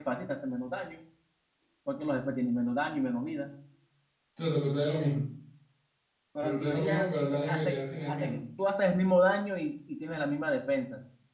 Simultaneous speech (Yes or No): Yes